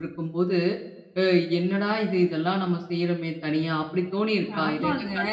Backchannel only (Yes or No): No